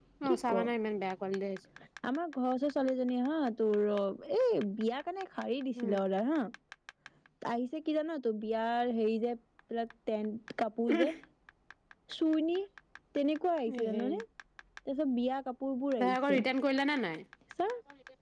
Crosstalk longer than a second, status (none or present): none